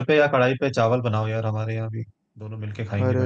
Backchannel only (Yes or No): No